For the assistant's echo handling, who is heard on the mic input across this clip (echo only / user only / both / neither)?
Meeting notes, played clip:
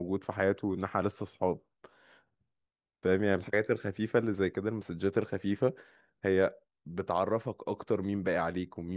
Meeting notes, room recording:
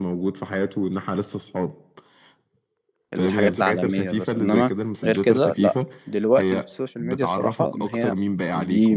both